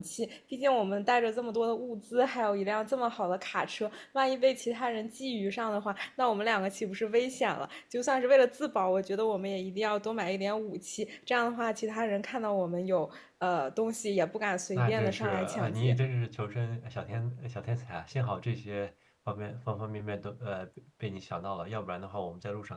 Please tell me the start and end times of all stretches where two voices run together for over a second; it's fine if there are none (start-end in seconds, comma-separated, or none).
14.8-16.0